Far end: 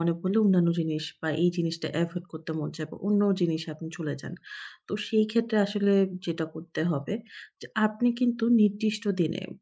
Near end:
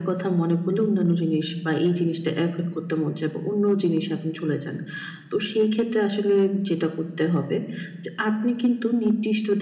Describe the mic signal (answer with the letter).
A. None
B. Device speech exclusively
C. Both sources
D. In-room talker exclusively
B